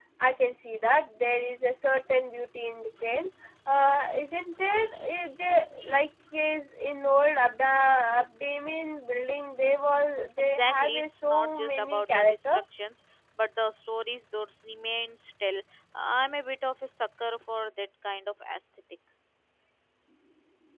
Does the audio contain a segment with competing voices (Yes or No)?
Yes